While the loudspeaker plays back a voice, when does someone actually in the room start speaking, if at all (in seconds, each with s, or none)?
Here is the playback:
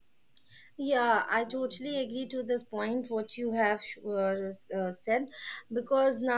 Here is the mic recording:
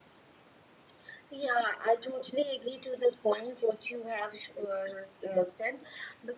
none